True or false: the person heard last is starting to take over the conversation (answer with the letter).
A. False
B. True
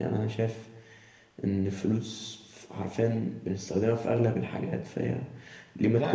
B